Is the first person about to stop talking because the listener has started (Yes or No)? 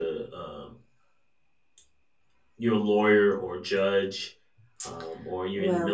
No